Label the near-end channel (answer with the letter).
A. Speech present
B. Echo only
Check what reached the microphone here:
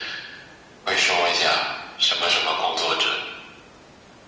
B